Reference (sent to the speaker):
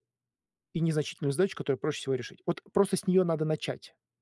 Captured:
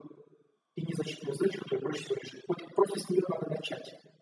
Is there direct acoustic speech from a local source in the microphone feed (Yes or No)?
No